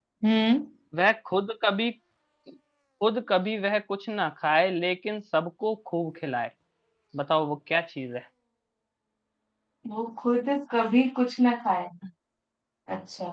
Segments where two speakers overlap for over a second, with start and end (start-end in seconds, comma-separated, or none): none